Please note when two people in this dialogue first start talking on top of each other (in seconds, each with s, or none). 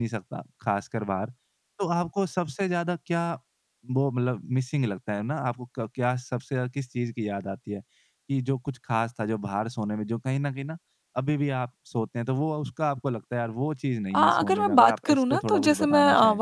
14.1 s